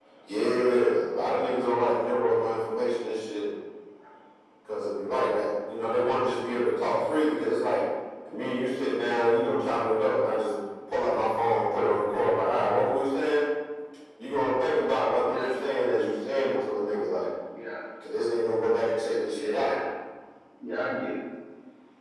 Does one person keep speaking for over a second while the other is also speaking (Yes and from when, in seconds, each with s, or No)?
No